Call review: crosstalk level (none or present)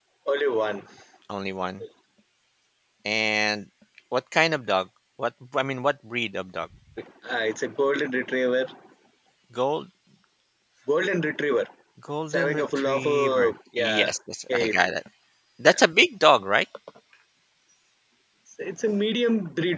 present